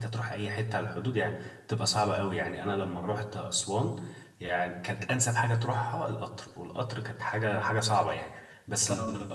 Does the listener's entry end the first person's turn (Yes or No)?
No